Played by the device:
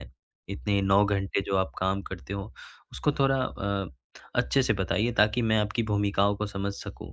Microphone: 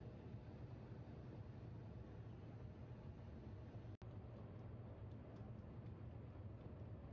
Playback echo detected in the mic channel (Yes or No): No